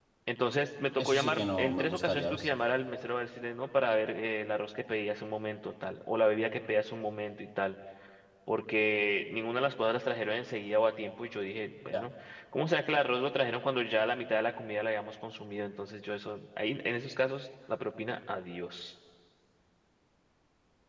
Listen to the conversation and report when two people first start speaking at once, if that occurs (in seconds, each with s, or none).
1.0 s